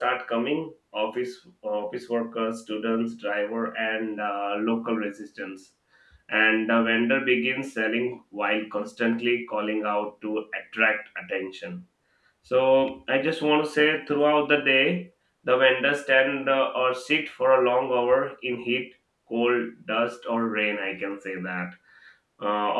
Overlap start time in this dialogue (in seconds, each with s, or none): none